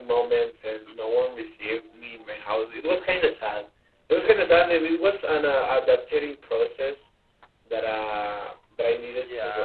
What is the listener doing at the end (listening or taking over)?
taking over